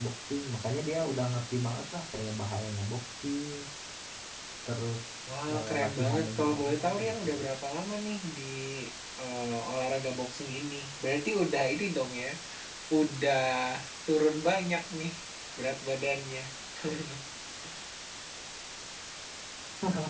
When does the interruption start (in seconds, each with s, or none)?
5.5 s